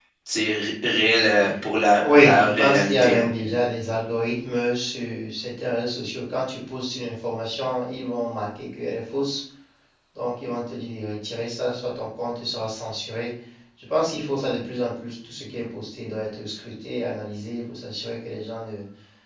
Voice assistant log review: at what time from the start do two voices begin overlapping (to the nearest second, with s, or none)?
2 s